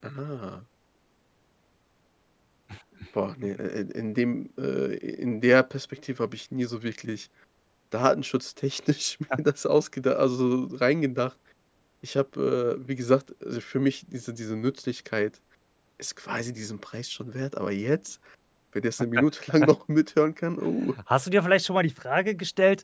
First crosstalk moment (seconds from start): none

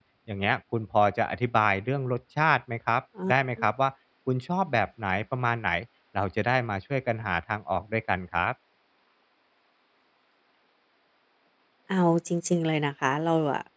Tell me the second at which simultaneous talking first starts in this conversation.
none

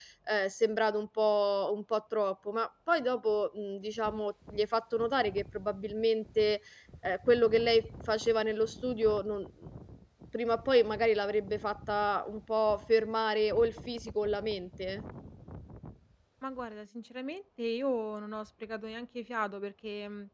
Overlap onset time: none

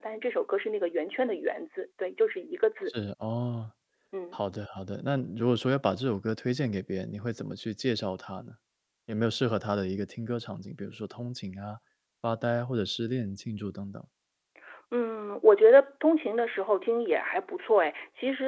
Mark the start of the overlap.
none

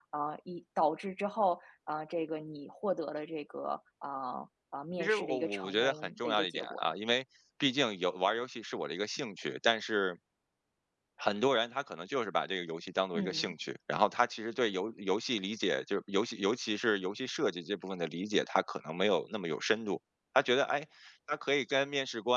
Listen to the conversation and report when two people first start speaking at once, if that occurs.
5.0 s

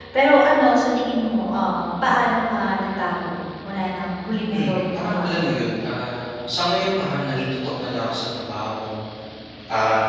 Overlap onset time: 4.5 s

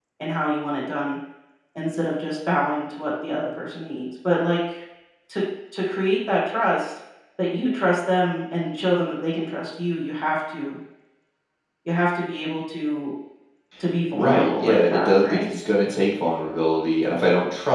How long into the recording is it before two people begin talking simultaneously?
14.1 s

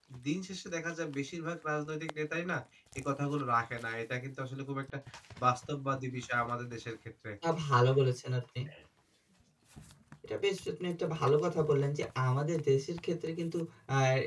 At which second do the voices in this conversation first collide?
none

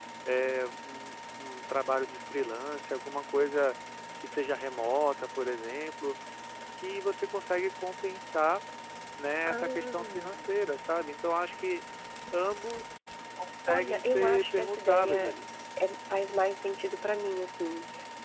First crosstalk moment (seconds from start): 9.4 s

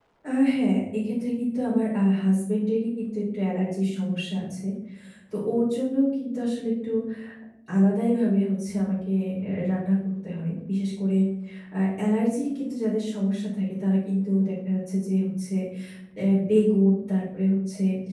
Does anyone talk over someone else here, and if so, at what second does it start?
none

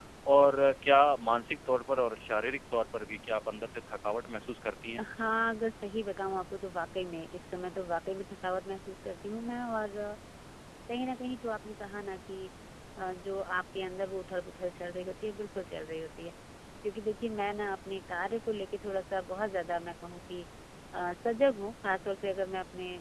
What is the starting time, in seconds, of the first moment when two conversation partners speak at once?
none

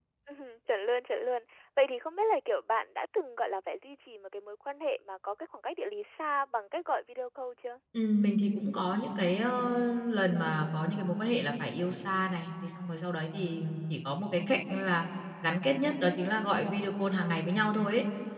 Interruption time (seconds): none

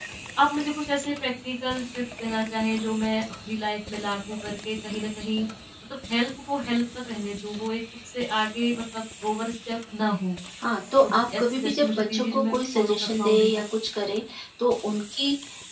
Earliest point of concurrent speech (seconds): 11.0 s

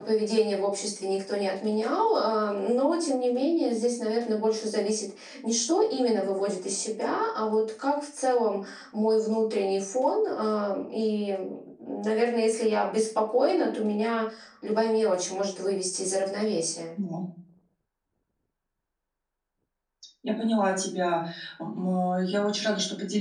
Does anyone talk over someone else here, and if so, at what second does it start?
none

